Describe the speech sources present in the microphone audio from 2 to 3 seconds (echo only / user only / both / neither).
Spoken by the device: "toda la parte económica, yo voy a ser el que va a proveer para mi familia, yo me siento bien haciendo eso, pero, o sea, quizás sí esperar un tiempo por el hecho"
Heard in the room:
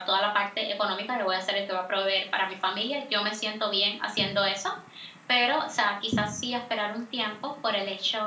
echo only